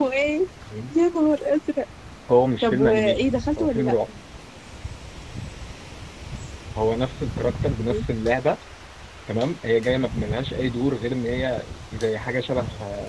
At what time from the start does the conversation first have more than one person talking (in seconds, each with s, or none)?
2.6 s